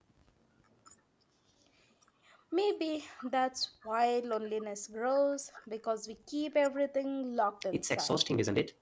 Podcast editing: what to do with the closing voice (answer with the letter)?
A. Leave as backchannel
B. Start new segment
B